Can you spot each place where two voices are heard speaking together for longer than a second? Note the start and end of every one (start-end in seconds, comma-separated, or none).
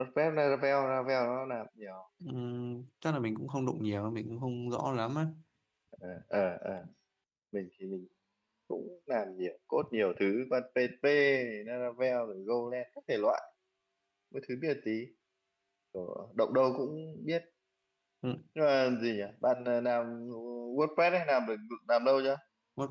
none